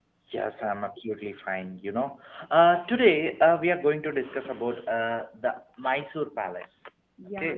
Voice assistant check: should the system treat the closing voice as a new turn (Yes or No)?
Yes